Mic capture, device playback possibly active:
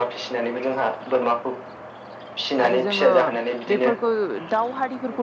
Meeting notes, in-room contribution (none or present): present